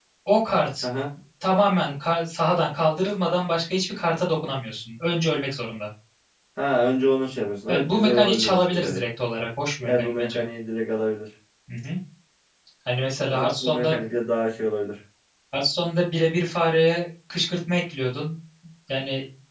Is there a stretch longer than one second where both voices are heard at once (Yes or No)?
Yes